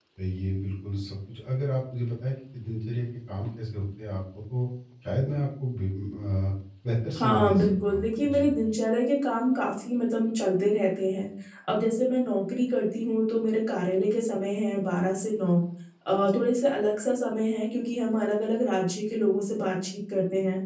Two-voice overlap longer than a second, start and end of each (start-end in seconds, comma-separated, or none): 7.2-8.5